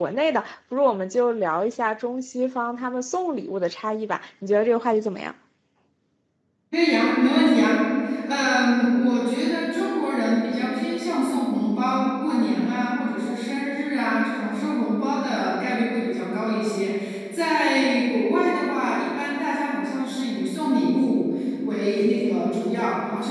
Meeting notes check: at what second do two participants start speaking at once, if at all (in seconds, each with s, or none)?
none